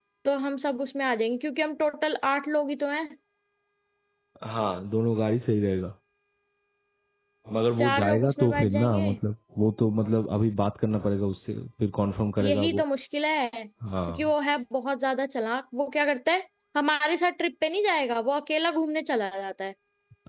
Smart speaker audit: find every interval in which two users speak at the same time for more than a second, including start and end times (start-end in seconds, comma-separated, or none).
7.8-9.1